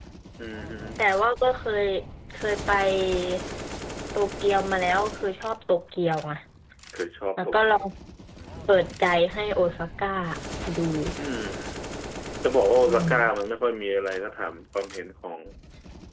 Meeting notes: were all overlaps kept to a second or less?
Yes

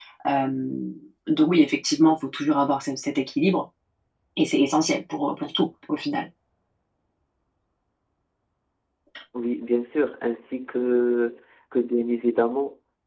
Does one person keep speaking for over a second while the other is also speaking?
No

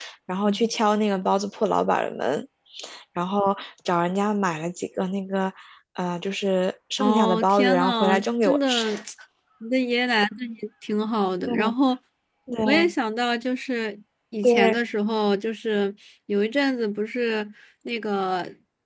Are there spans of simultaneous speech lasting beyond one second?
Yes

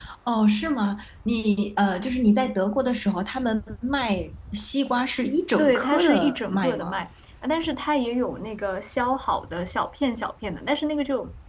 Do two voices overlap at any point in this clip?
Yes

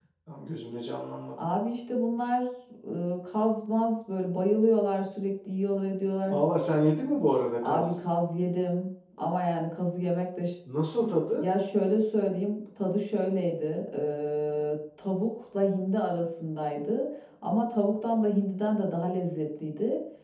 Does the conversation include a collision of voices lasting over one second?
No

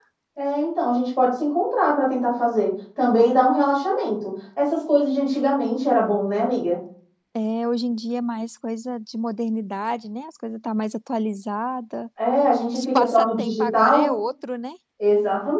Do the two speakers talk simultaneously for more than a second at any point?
Yes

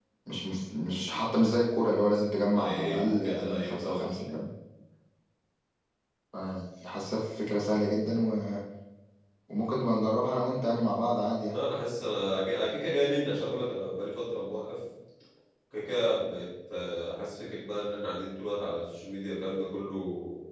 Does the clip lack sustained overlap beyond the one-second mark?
No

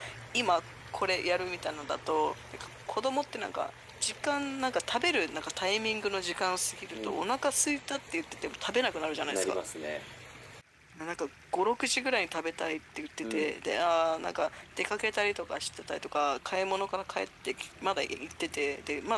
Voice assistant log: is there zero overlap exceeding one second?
Yes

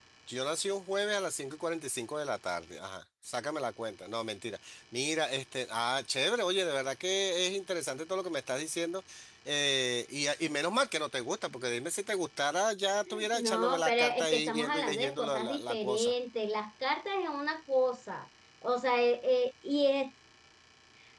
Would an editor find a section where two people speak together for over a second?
Yes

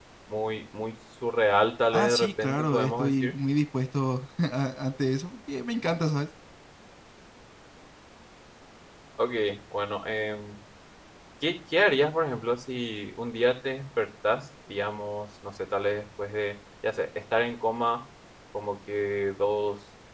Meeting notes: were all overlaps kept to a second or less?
No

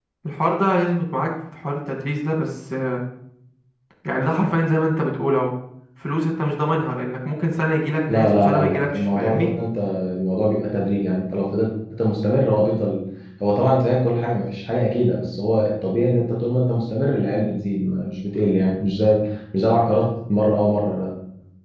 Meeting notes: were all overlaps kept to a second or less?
No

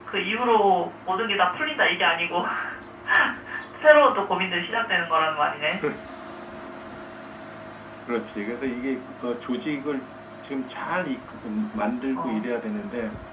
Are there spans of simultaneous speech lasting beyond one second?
No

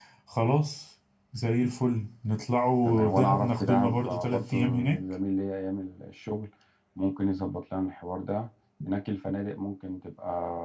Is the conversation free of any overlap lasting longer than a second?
No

